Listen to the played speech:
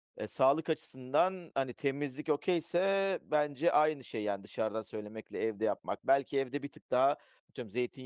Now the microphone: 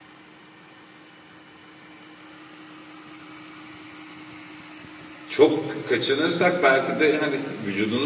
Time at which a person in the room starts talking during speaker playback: 5.3 s

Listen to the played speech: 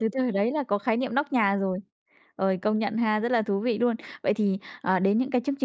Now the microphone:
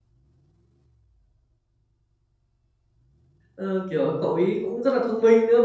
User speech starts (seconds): 3.5 s

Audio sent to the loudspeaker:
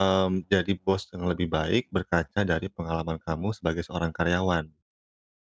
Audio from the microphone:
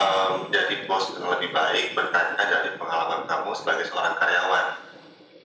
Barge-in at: none

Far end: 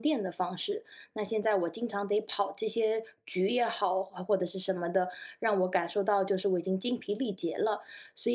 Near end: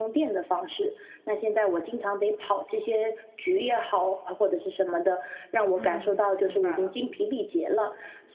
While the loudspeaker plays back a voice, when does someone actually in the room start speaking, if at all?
5.7 s

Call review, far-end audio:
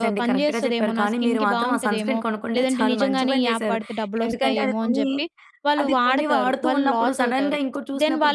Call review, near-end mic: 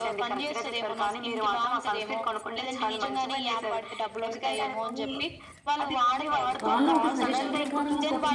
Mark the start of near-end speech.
6.6 s

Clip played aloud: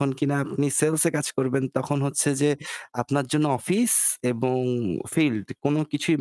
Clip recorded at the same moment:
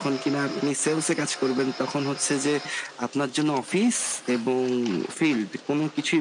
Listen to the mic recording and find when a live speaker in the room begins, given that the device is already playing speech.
none

